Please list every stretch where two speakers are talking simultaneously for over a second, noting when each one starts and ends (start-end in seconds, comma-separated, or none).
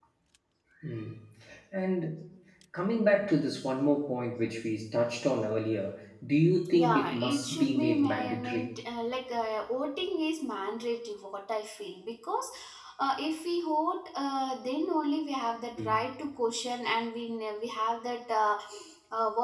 6.8-8.7